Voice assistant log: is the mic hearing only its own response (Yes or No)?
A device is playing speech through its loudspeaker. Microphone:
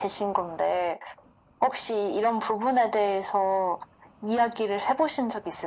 Yes